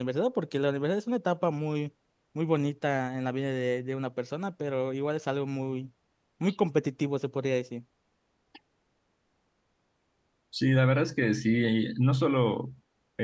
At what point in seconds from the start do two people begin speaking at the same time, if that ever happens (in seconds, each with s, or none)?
none